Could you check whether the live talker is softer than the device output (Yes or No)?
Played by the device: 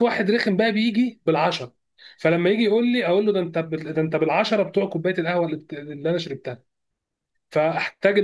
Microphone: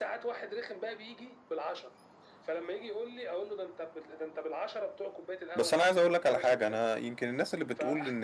No